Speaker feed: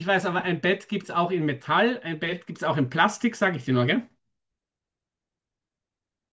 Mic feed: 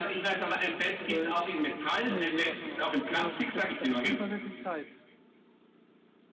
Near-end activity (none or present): present